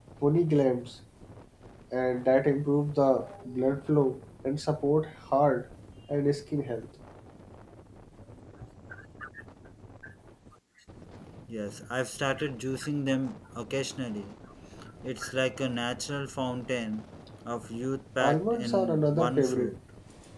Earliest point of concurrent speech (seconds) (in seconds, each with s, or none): 18.2 s